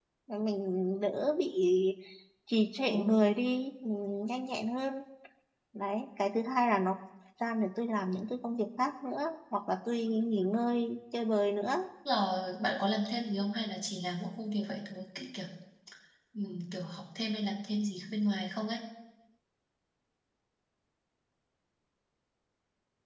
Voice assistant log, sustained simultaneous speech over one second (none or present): none